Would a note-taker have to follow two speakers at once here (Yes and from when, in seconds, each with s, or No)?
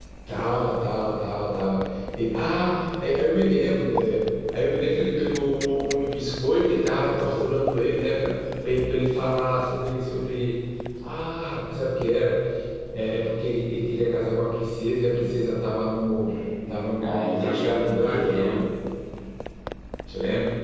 Yes, from 16.7 s